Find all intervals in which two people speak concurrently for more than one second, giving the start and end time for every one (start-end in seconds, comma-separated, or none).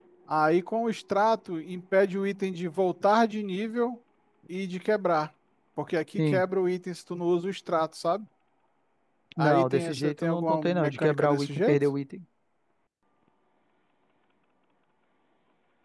9.4-11.8